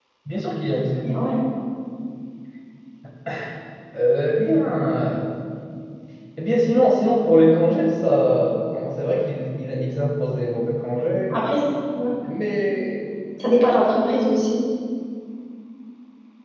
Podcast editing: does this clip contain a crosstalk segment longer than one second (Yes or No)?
No